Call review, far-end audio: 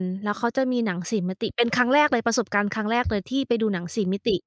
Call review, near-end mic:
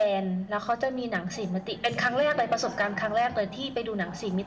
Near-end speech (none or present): present